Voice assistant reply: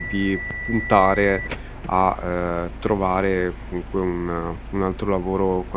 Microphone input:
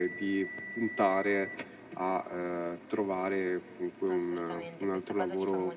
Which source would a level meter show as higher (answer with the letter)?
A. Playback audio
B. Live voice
A